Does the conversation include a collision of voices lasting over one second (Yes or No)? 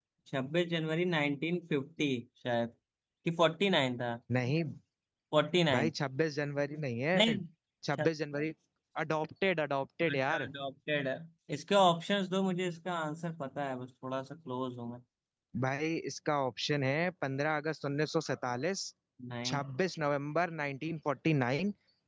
No